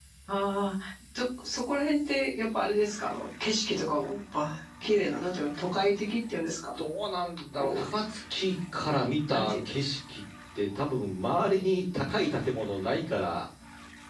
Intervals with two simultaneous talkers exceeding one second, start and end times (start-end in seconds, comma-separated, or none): none